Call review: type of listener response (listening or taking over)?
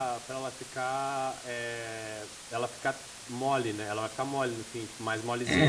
taking over